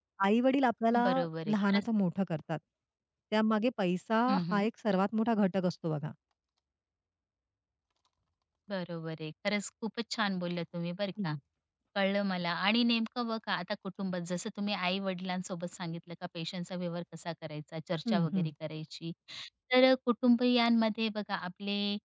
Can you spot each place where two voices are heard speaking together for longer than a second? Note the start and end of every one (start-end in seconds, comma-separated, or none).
none